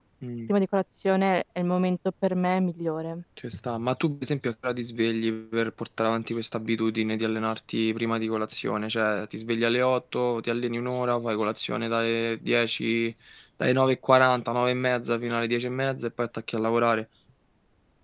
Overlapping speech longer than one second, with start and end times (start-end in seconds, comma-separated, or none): none